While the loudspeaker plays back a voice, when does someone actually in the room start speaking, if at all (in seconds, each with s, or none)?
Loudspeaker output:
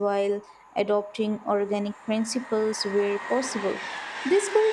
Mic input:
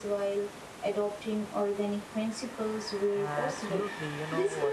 3.1 s